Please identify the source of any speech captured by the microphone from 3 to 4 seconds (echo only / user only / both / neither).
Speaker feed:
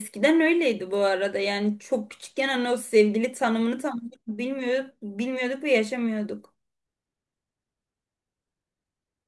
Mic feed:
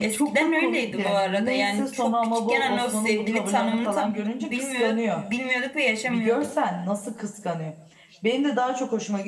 both